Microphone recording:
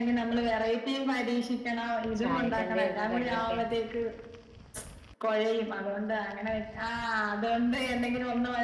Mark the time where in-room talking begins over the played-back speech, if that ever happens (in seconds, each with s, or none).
2.2 s